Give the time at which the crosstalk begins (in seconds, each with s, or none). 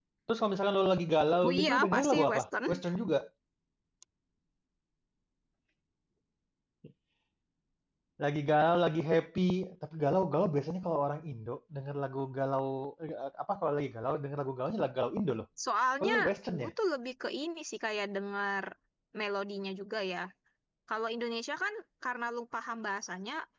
1.4 s